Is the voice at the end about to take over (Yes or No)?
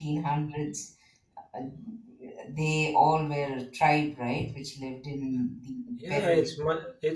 Yes